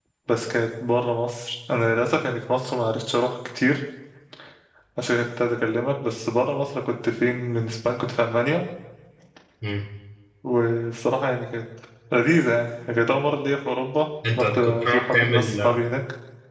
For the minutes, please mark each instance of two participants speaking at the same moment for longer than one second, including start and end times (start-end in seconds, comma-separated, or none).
14.4-15.6